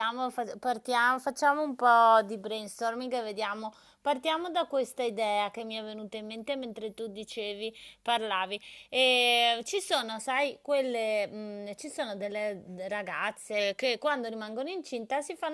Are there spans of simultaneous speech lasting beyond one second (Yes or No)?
No